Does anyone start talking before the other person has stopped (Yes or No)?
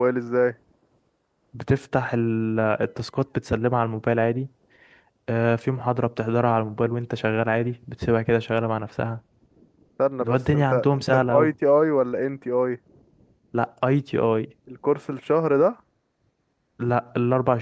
Yes